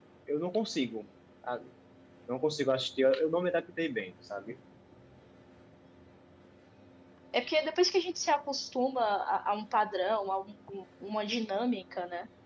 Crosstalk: none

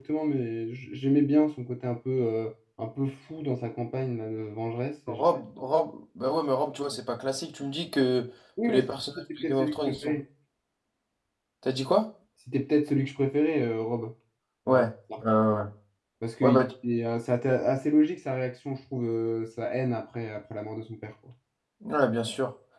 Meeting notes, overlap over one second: present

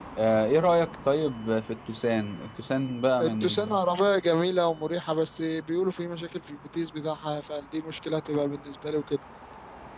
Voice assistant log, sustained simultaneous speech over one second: none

